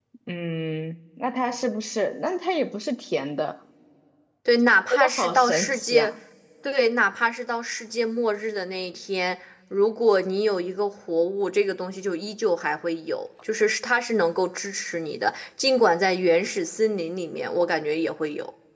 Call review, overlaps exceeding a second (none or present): present